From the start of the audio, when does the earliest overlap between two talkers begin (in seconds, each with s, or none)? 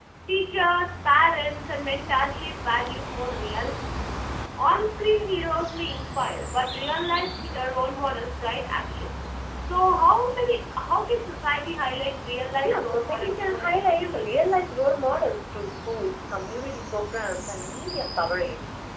12.6 s